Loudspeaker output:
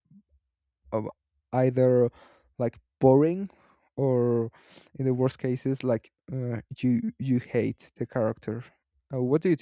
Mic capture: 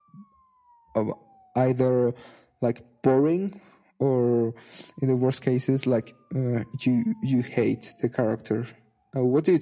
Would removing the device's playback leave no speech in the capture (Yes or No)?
Yes